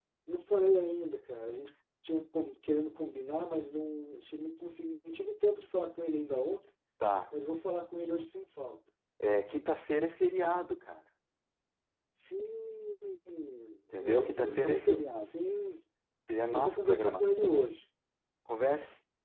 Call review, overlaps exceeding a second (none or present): present